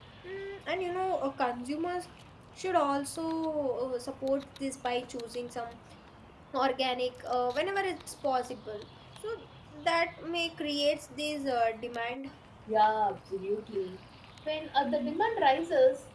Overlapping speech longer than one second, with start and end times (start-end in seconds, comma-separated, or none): none